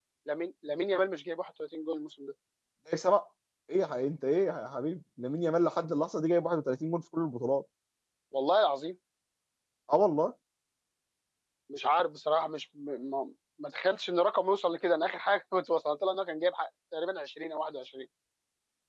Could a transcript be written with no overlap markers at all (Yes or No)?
Yes